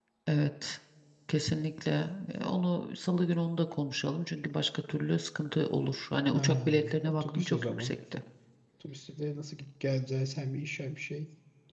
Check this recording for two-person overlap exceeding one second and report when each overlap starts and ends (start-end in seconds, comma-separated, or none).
6.3-7.9